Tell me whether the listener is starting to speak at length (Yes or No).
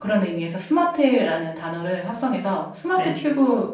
No